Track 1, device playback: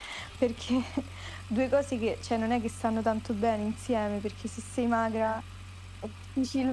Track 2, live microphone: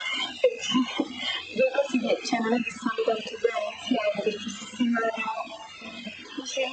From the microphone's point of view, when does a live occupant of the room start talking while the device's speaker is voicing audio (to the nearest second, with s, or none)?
none